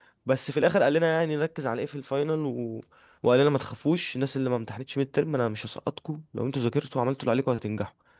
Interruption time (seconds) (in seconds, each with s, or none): none